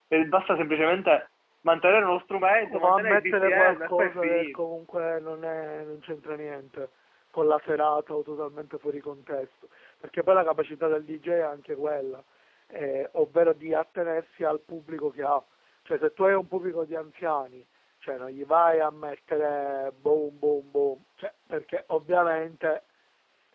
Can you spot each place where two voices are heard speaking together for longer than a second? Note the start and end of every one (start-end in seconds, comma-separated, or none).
2.7-4.6